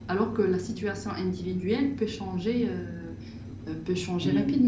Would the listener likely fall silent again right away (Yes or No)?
No